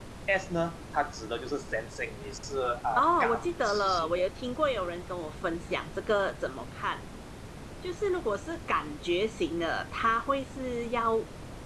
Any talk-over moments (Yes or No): Yes